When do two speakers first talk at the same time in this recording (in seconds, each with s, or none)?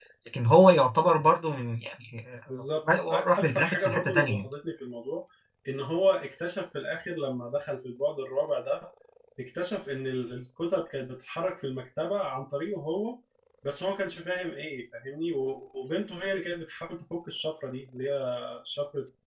3.1 s